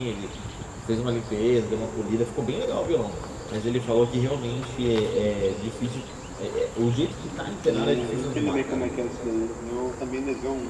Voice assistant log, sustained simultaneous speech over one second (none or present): present